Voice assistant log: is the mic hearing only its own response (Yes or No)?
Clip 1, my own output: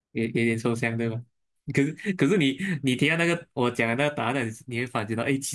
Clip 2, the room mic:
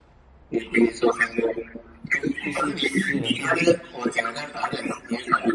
No